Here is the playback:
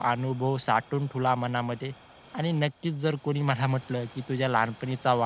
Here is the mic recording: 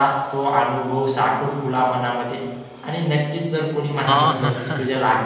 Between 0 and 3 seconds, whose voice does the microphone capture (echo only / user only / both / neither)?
echo only